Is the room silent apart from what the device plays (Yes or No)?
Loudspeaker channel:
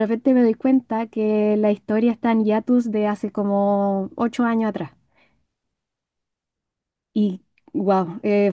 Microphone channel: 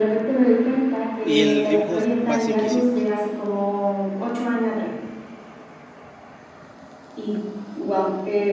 No